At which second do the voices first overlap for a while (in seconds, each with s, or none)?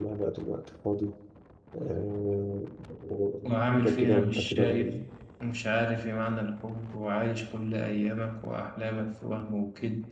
3.7 s